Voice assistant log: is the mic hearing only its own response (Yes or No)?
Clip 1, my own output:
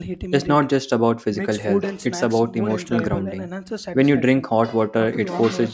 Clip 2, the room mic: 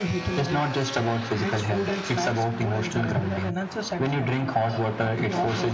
Yes